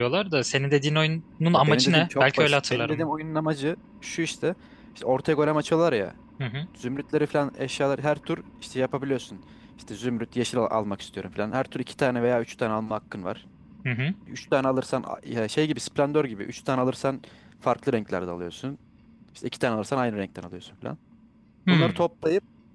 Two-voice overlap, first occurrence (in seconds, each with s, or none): 1.5 s